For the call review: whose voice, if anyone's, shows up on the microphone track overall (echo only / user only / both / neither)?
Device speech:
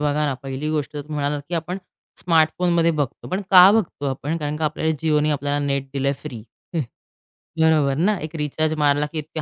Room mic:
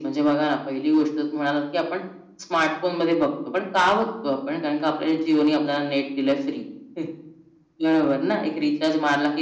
echo only